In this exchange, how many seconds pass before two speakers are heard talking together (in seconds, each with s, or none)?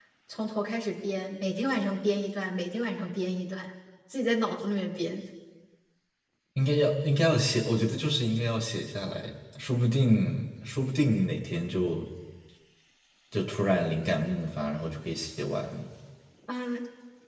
none